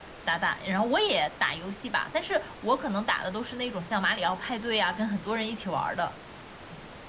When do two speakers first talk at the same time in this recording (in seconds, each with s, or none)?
none